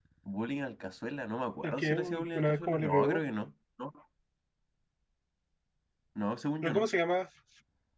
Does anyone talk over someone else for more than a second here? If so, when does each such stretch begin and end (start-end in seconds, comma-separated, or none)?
1.6-3.2